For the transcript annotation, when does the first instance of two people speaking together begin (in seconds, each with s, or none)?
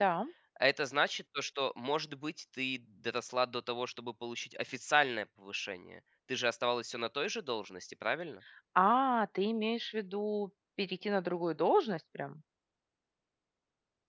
none